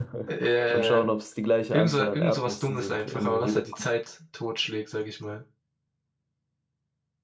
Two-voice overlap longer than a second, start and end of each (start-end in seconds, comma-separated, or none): 1.7-3.6